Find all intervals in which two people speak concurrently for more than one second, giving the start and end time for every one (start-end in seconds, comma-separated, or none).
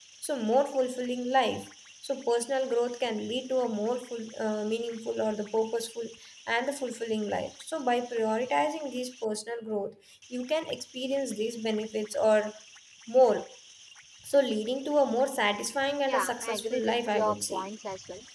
16.1-17.6